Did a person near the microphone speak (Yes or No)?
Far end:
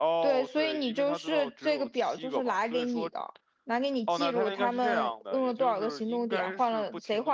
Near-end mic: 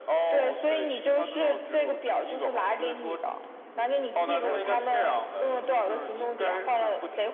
No